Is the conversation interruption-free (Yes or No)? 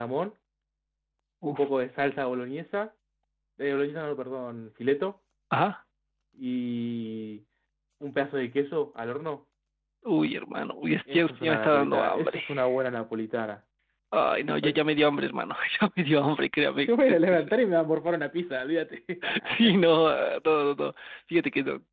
No